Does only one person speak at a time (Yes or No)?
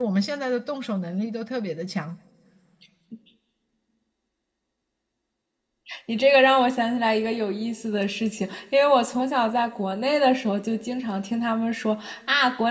Yes